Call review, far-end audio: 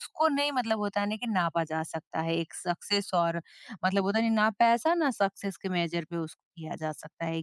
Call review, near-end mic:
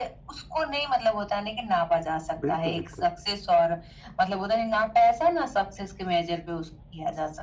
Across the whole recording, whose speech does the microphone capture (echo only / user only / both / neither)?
both